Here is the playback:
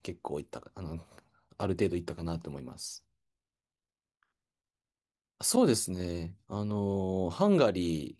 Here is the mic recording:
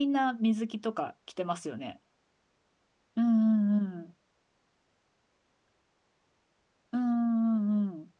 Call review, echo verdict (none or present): none